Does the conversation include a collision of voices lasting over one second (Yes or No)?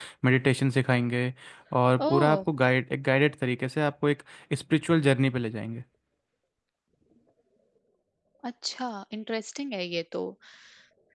No